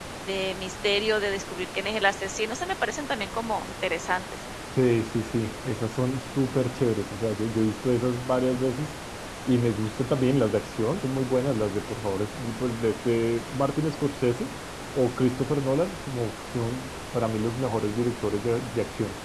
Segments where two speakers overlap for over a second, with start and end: none

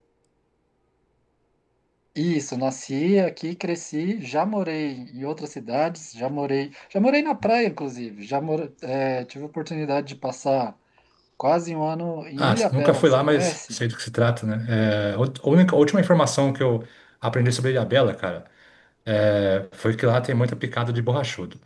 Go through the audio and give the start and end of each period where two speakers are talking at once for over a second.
12.4-13.8

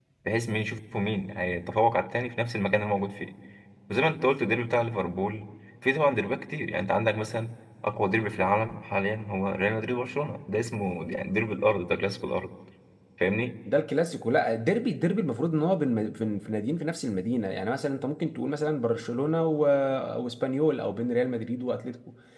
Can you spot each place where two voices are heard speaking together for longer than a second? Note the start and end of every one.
none

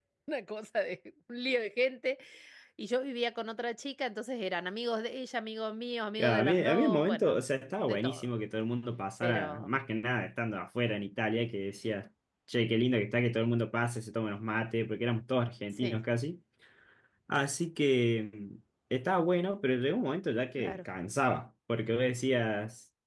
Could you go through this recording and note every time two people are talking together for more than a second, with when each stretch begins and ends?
6.2-8.3

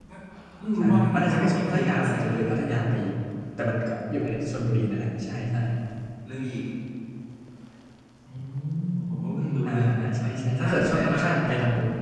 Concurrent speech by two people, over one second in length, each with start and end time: 0.8-2.4, 10.2-11.5

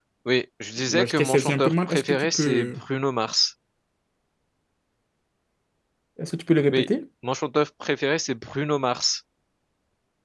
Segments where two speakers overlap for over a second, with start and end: 0.9-2.8

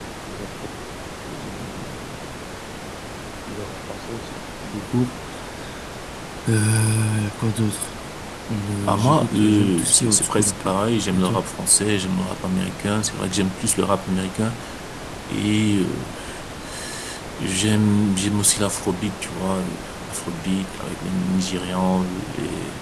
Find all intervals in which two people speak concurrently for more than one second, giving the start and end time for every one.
8.8-10.8

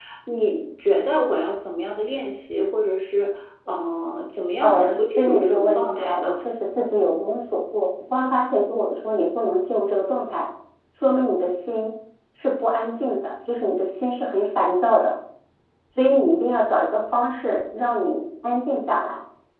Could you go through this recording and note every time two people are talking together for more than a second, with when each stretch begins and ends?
4.6-6.3

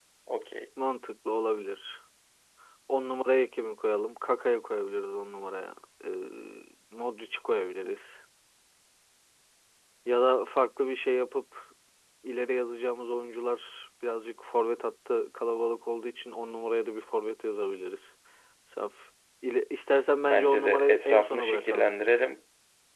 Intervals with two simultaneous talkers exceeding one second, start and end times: 20.2-21.9

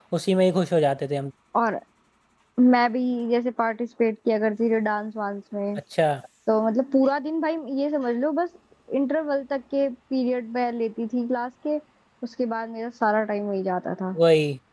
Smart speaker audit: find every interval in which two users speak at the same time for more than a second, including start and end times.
none

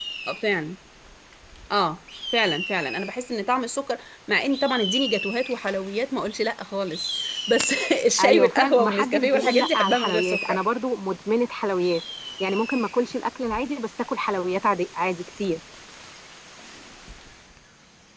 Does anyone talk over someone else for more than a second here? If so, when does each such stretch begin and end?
8.2-10.6

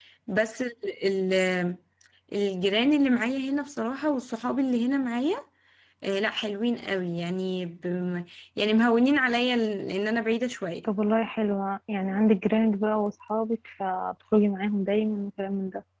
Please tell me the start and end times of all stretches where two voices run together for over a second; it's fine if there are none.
none

